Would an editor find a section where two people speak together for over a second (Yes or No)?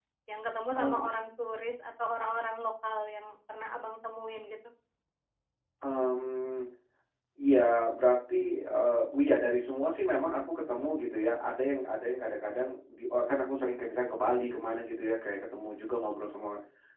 No